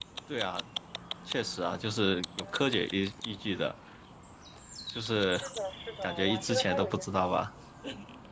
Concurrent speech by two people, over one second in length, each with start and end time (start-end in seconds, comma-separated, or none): 6.0-7.3